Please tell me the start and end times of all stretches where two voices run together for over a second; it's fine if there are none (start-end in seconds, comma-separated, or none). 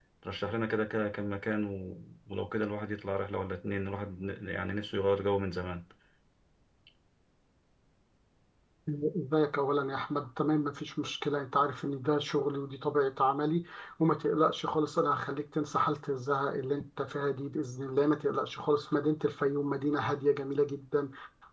none